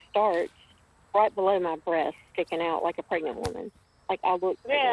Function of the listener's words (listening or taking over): taking over